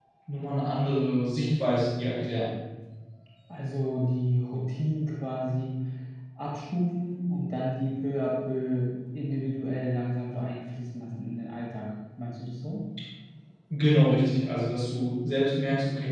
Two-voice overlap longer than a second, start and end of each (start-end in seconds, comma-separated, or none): none